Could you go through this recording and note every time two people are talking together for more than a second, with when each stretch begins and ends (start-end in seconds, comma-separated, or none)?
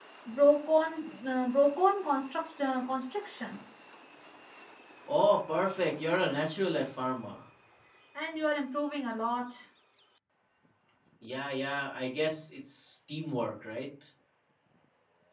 none